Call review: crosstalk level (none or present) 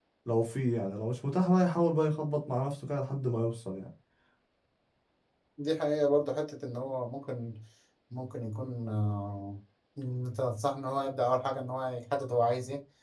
none